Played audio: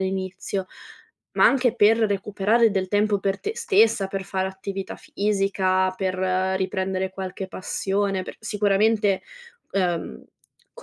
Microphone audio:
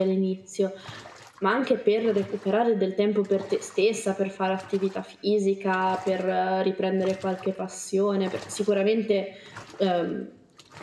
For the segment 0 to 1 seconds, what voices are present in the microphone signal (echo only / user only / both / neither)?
echo only